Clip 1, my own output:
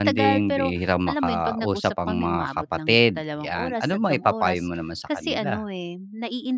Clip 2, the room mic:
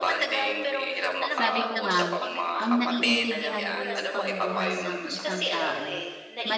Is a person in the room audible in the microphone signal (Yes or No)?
Yes